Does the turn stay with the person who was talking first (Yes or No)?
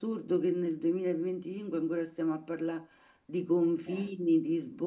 Yes